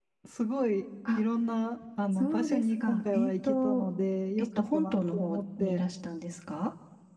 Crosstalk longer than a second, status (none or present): present